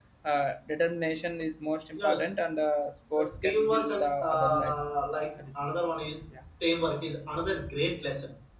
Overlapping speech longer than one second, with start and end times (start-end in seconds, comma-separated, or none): 3.2-4.8